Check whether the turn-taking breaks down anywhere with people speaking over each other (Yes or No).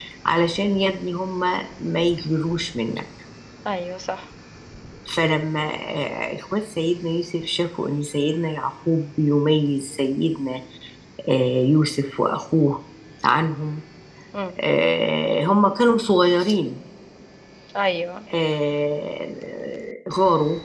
No